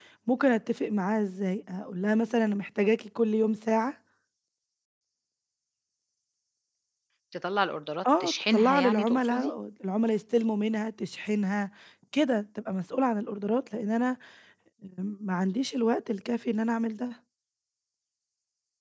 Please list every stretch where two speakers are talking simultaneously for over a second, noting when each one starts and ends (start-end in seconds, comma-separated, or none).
8.2-9.5